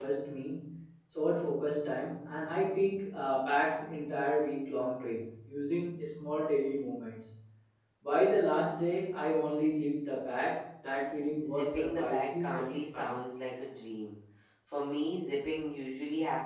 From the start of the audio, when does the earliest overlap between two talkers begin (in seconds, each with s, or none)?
11.4 s